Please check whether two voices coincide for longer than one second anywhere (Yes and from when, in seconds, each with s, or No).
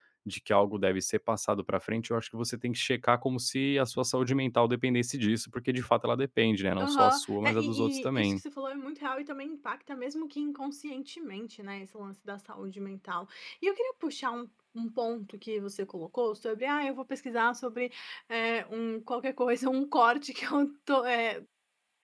Yes, from 6.8 s